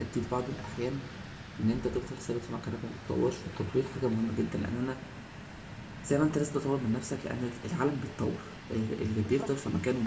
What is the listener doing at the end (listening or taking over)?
taking over